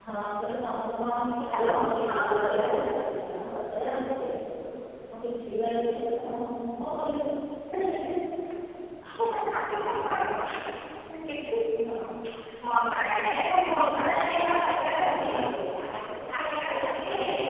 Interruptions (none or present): present